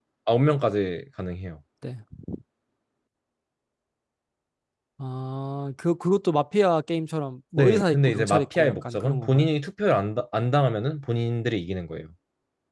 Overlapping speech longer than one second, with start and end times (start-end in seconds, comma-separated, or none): 7.6-9.5